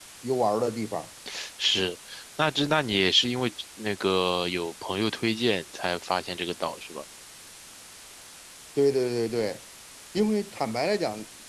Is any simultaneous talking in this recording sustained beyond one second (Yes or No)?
No